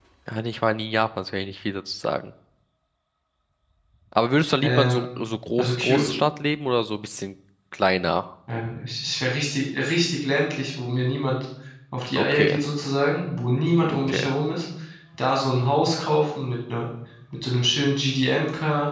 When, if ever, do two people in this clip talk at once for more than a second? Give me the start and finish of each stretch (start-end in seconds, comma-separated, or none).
none